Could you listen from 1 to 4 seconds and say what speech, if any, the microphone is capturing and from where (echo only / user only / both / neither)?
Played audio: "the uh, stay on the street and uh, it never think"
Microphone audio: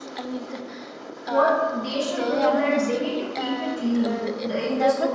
both